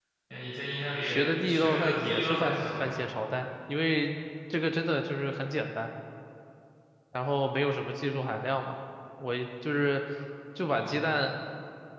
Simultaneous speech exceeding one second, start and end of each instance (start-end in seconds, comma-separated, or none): 1.4-2.9